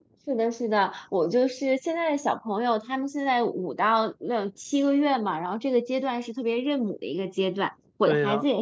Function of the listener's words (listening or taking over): listening